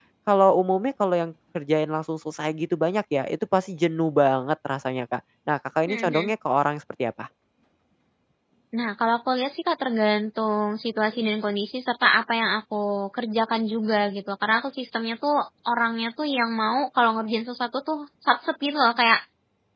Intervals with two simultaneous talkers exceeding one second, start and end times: none

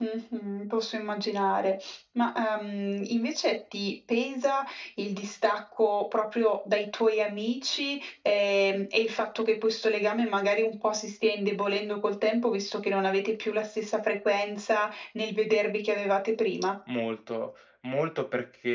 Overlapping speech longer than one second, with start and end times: none

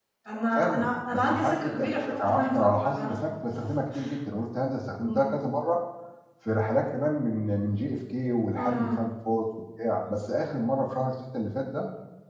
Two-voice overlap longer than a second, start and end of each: 0.5-3.3

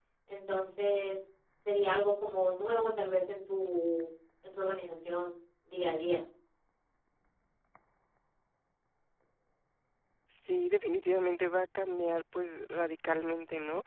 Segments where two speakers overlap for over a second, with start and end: none

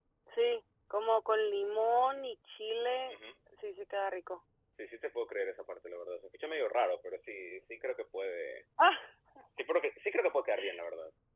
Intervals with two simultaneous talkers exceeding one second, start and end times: none

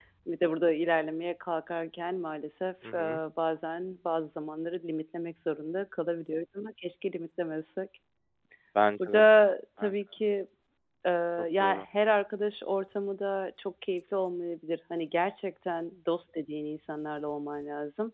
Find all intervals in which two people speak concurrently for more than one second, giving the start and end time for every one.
none

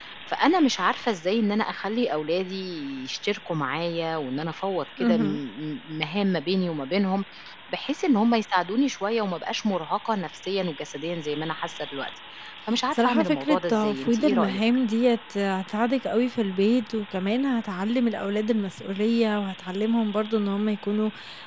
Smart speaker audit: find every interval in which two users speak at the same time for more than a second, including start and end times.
12.9-14.6

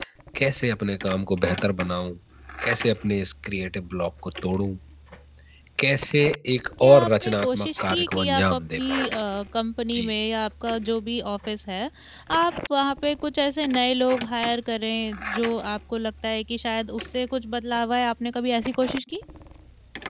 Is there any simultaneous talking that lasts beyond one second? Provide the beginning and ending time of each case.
6.8-9.1

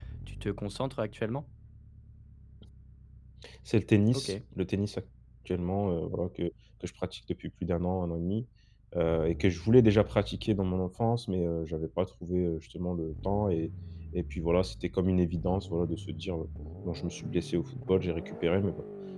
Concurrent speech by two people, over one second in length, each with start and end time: none

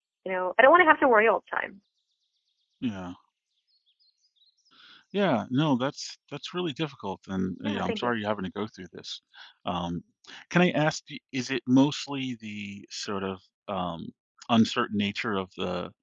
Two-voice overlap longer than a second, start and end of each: none

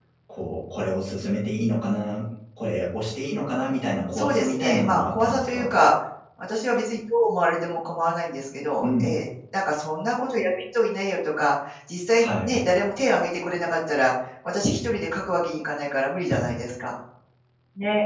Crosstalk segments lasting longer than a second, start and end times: 4.1-5.7

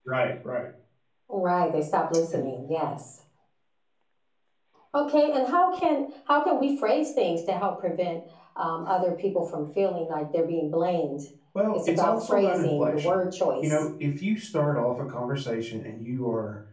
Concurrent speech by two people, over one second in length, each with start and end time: 11.7-13.2

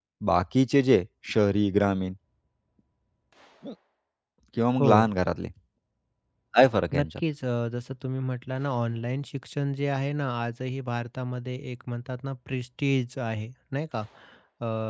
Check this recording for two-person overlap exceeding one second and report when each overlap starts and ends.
none

